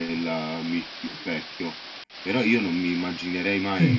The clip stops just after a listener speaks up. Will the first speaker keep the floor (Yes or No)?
Yes